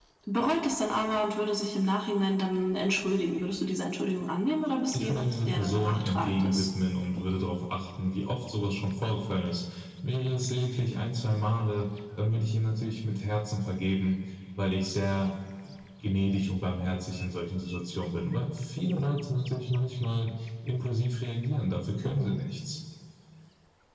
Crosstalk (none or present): present